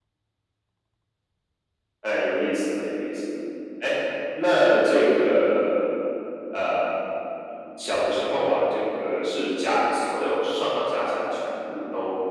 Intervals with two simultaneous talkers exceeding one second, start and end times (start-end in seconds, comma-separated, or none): none